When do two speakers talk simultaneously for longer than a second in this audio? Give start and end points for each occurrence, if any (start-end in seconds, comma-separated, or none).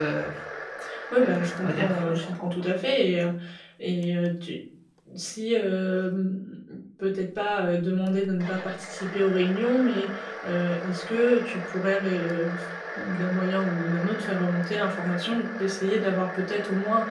1.2-2.6